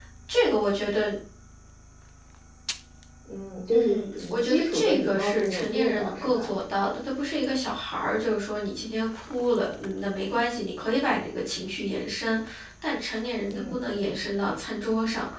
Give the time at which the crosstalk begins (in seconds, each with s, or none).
3.7 s